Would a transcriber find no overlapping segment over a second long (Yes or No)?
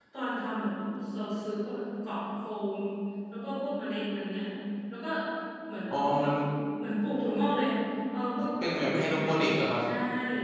No